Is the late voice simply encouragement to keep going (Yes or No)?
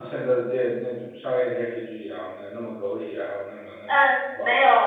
No